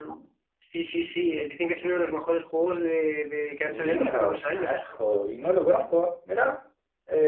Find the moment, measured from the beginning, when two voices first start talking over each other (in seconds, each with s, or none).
3.6 s